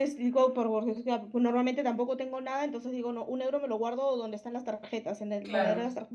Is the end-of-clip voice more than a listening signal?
No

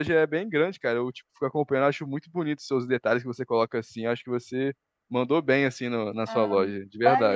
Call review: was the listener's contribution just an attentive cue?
No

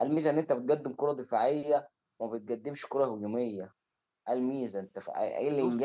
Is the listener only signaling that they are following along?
Yes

